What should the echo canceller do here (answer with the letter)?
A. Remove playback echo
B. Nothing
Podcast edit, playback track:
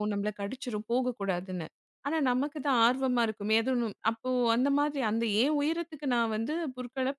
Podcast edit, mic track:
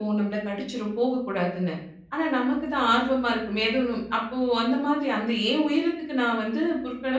A